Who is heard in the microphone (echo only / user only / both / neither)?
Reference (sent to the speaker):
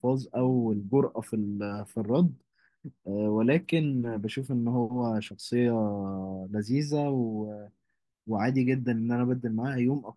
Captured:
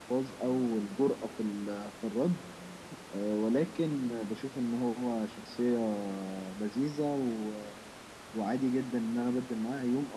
echo only